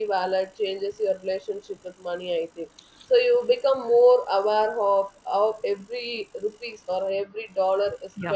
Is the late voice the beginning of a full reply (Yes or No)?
No